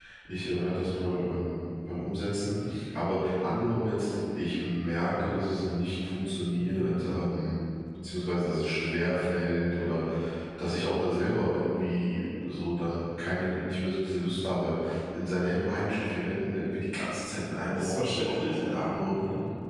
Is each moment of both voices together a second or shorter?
No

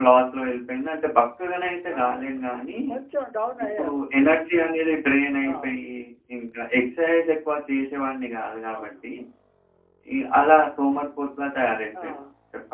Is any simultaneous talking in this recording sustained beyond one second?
No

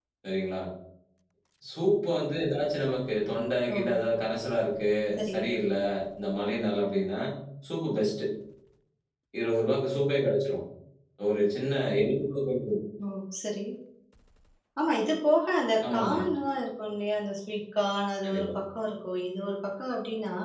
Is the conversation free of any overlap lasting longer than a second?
Yes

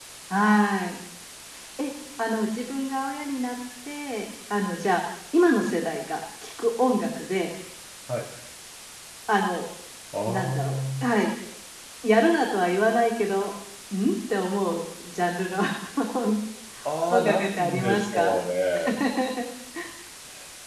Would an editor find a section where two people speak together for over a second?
Yes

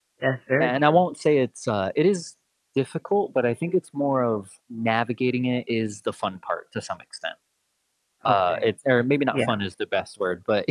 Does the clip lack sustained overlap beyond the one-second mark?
Yes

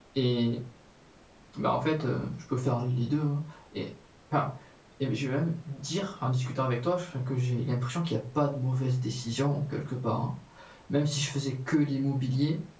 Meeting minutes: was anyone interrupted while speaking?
No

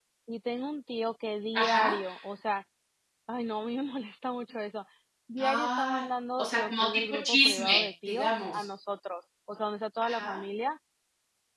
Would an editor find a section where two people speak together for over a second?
Yes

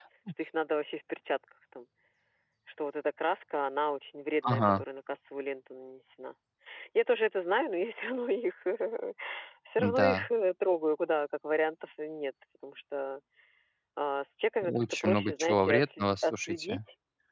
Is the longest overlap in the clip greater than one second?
Yes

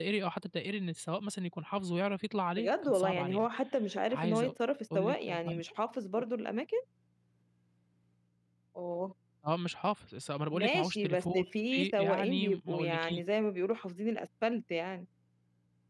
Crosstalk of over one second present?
Yes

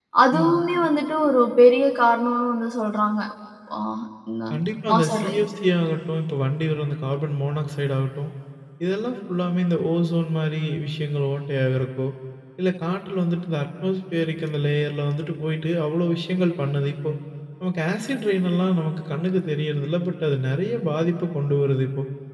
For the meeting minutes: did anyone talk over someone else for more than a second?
No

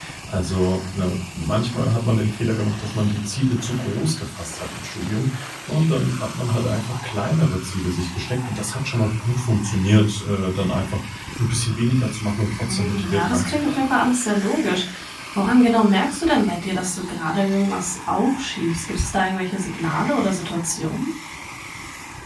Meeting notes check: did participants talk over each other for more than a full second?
Yes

